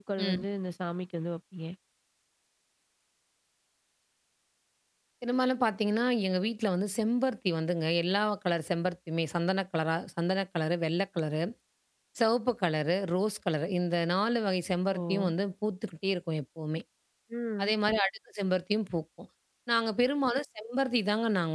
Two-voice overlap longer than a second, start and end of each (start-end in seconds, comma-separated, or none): none